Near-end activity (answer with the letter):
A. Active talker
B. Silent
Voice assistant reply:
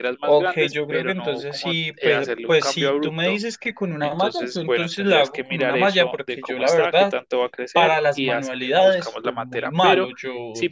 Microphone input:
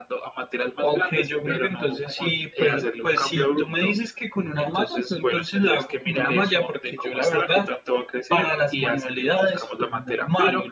B